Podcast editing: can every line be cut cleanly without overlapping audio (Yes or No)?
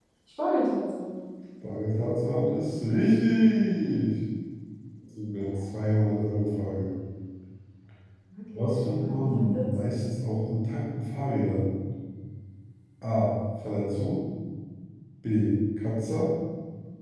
No